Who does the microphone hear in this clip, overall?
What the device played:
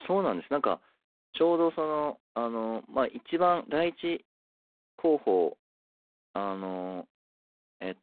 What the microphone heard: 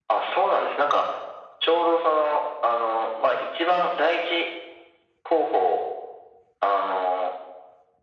echo only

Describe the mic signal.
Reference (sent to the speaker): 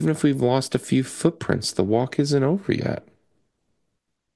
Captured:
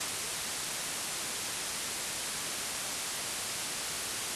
neither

